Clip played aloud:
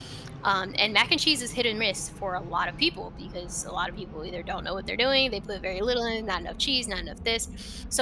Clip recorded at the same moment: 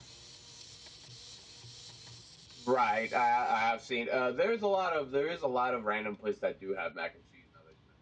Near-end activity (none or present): present